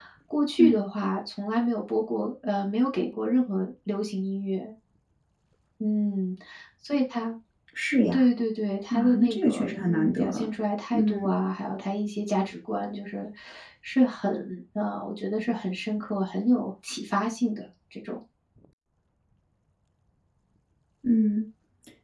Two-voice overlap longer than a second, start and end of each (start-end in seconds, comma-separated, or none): 8.9-10.5